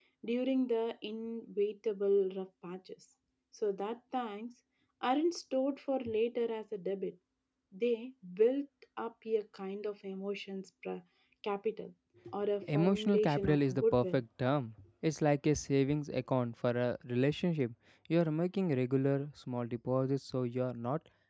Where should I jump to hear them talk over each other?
12.7 s

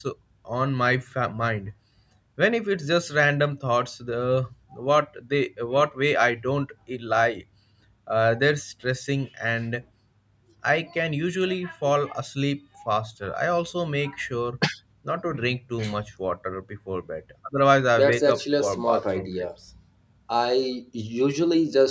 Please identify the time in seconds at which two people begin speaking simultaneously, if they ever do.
18.0 s

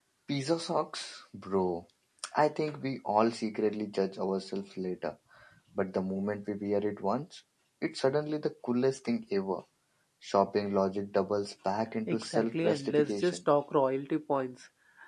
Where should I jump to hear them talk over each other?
12.1 s

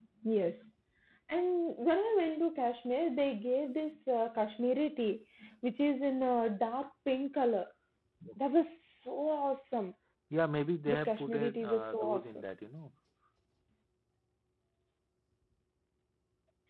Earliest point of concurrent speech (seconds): 10.9 s

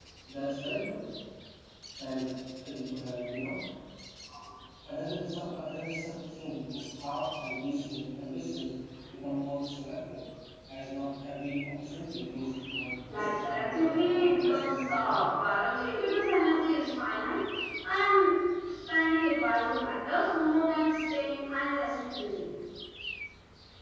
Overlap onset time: 13.1 s

